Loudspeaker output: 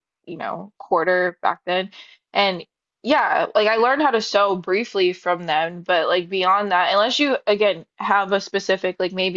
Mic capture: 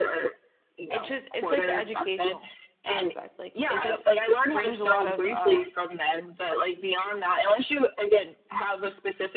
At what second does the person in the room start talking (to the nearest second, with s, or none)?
1 s